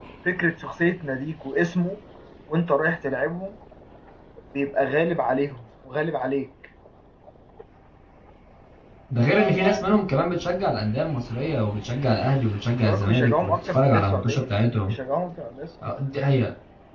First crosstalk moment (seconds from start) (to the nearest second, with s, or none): 13 s